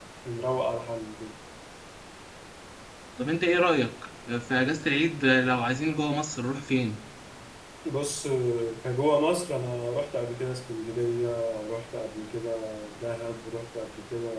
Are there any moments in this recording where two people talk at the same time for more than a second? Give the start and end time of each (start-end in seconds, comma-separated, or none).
none